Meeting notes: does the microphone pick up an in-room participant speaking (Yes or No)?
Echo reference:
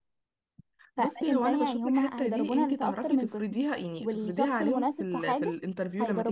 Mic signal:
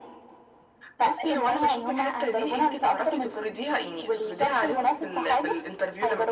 No